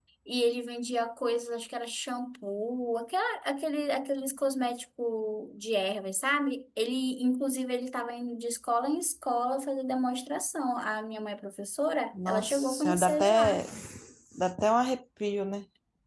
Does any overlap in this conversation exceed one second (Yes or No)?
Yes